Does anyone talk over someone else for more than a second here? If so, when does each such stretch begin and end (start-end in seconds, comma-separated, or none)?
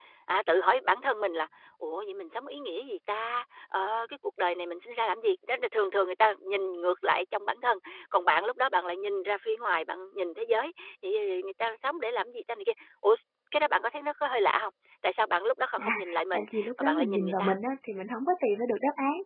15.8-17.5